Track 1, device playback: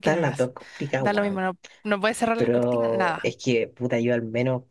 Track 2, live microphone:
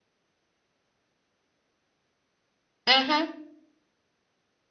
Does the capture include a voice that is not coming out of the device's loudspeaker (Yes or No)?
Yes